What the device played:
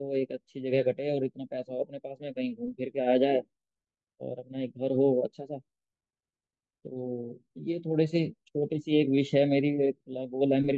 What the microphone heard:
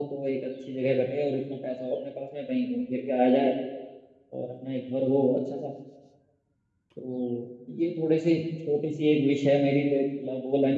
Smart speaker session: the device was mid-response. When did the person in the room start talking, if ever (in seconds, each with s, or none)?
none